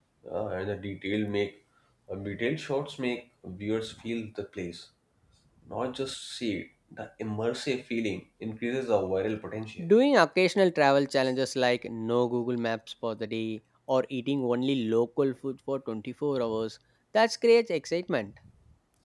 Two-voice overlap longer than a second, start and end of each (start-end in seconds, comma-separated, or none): none